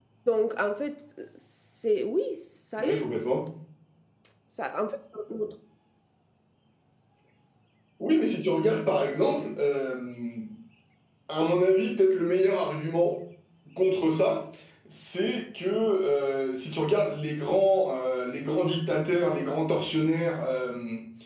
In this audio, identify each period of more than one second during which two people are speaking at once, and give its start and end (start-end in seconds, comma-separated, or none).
none